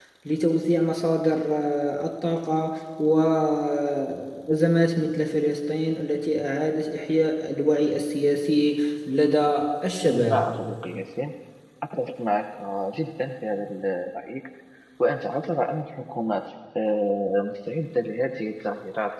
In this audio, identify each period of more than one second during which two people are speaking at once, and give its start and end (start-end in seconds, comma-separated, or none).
none